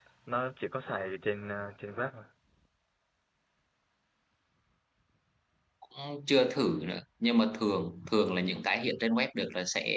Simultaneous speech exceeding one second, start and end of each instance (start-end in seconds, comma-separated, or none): none